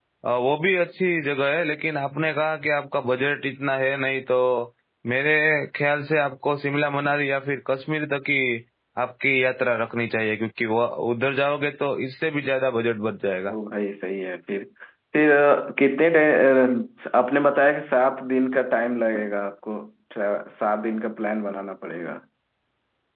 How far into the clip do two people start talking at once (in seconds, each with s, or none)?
none